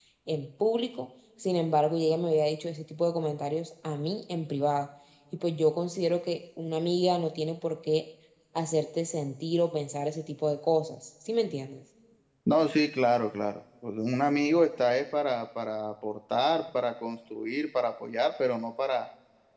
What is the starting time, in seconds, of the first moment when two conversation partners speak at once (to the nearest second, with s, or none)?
none